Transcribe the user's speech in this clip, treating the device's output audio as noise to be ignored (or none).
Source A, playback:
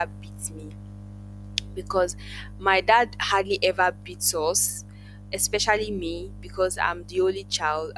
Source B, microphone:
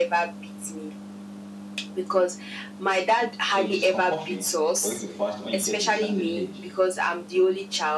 So it is compulsory for you to fast when you get to a certain age.